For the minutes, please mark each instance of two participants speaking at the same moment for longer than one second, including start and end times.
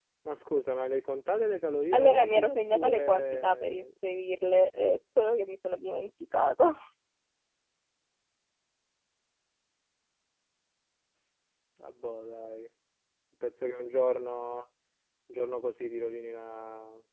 1.9-3.8

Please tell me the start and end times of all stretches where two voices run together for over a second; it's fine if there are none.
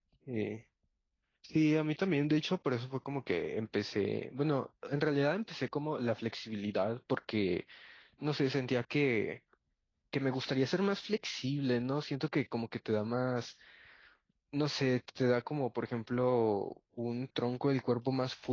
none

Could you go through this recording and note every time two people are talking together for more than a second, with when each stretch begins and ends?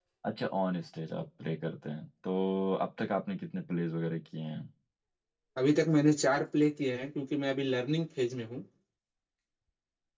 none

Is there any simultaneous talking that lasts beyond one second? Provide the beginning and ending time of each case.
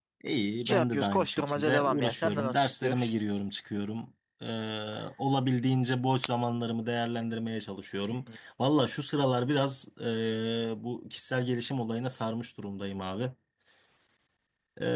0.6-3.1

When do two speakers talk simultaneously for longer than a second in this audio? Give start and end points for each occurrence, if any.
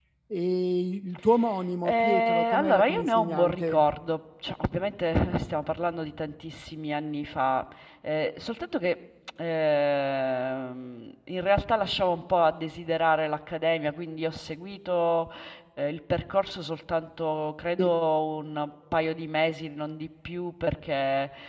1.8-3.8

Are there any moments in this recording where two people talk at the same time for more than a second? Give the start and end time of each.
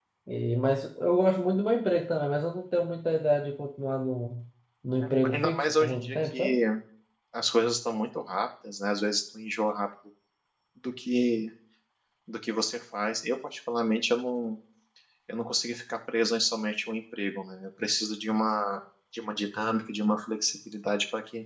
5.3-6.6

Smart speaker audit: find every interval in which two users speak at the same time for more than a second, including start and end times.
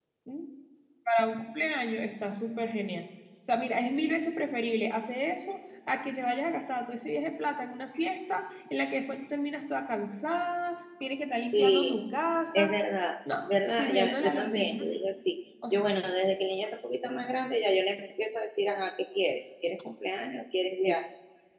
13.4-14.8

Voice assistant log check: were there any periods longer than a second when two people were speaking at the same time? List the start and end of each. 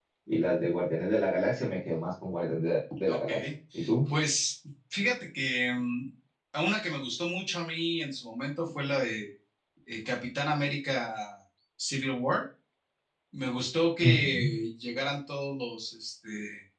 none

